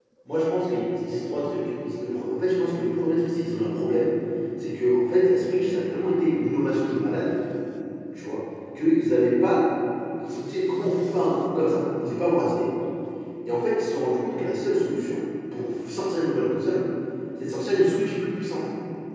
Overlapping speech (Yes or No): No